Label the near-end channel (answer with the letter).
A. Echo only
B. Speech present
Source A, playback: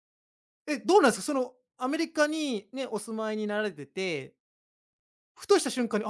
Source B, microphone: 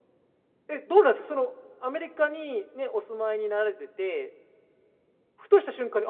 A